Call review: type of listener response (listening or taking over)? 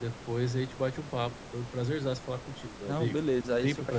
taking over